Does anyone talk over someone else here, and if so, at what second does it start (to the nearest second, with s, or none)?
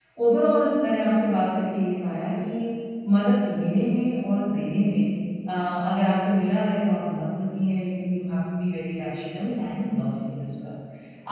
none